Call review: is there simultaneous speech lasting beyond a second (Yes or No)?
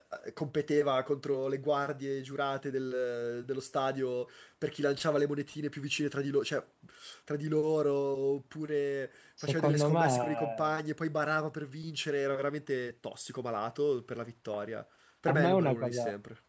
Yes